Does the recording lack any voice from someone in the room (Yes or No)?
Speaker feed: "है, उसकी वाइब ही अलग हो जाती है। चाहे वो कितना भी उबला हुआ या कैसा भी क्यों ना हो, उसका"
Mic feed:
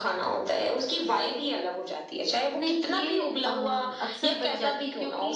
No